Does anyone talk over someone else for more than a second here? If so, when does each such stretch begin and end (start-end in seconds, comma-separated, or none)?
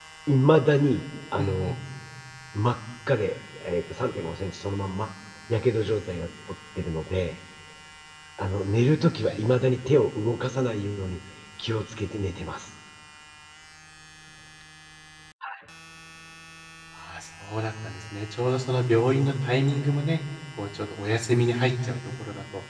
none